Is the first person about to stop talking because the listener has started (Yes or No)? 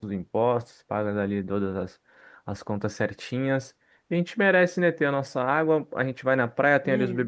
No